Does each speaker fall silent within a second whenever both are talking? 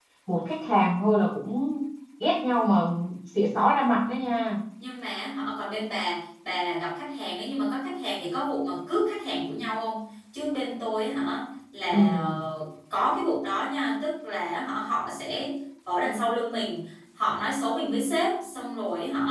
Yes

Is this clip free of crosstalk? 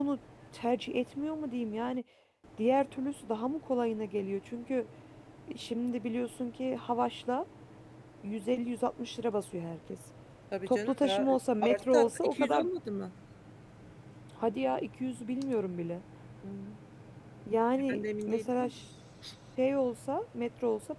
No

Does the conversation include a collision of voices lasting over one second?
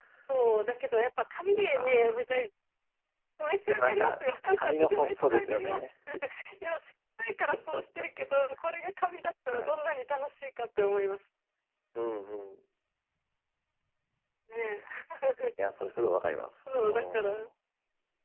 Yes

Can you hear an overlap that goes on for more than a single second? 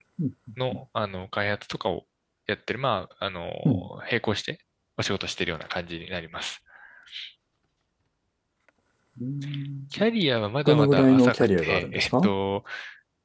Yes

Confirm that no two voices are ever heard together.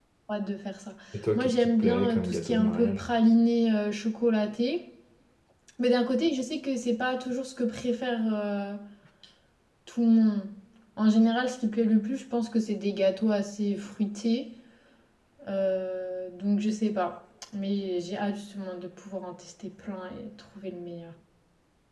No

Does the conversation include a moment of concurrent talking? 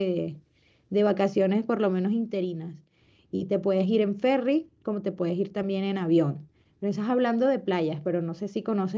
No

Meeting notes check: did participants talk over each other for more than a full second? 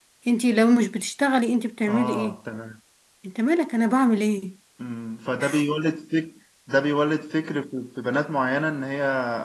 No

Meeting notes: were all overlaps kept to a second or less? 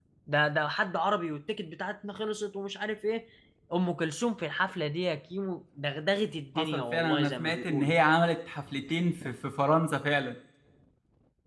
No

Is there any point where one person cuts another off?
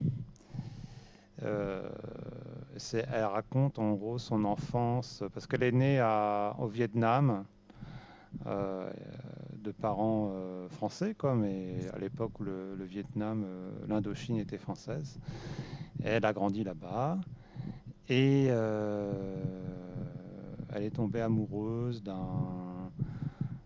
No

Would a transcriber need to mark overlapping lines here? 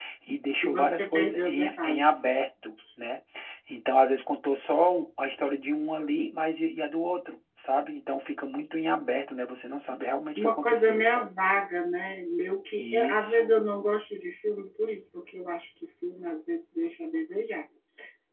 Yes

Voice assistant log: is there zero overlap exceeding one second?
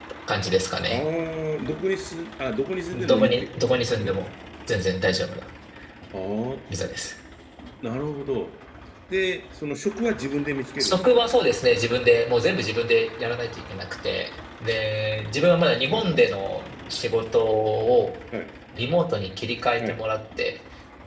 No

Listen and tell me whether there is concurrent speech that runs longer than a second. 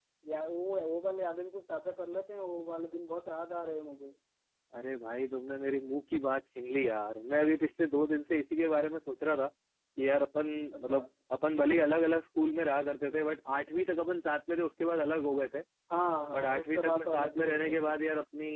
Yes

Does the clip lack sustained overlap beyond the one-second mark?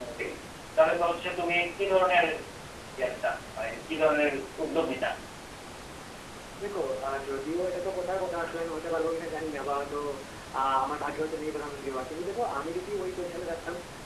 Yes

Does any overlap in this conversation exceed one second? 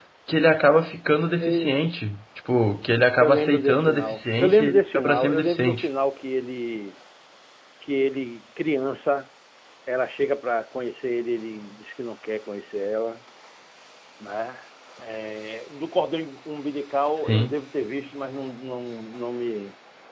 Yes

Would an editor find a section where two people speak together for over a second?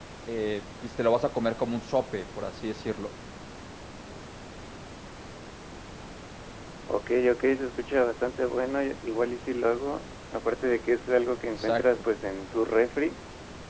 No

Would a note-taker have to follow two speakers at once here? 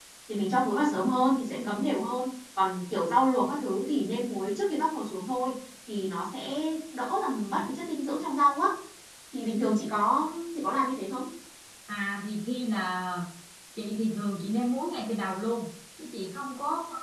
No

